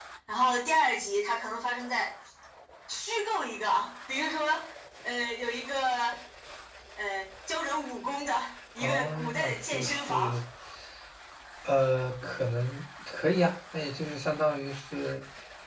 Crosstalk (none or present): present